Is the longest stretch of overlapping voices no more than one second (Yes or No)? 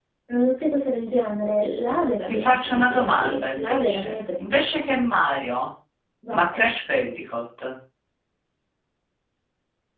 No